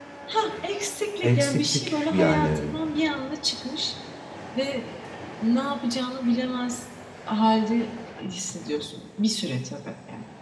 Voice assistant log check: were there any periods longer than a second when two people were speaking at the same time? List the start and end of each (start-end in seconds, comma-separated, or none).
1.2-2.7